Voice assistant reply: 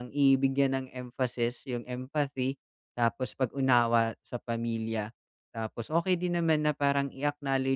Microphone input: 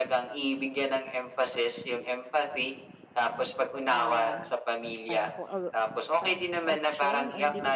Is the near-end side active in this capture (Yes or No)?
Yes